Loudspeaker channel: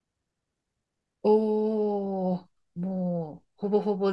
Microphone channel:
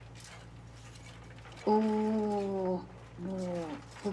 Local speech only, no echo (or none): none